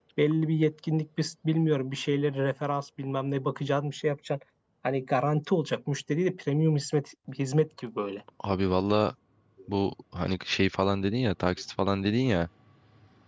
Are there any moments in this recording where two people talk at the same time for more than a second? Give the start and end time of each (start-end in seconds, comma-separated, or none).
none